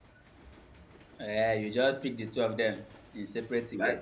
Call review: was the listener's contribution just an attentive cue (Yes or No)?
No